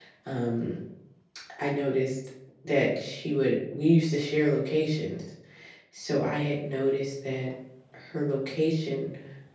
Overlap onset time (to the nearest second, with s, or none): none